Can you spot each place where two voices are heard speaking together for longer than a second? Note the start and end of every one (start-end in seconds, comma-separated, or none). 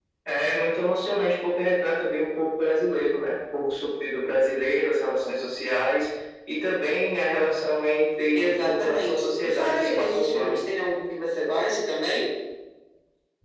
8.3-10.6